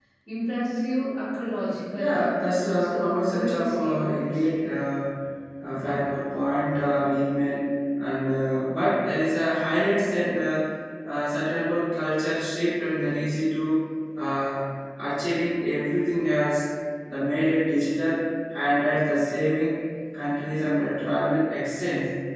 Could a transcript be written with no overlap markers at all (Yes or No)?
No